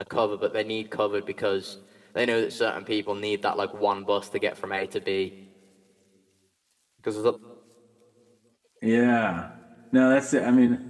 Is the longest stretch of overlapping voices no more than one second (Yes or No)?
Yes